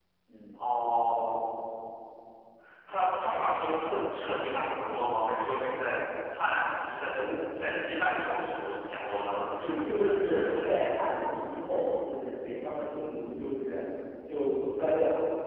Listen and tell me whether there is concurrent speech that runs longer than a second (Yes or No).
Yes